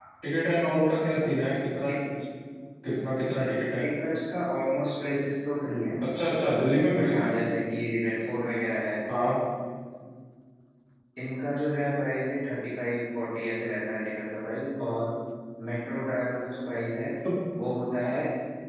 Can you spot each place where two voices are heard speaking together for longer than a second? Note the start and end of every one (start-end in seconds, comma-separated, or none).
none